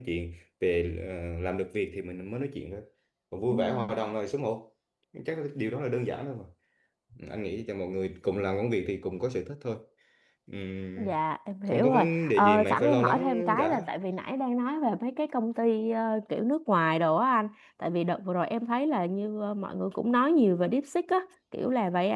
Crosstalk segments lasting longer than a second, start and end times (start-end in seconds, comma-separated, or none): 11.7-13.9